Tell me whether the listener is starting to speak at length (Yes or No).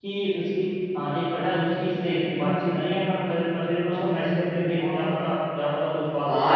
Yes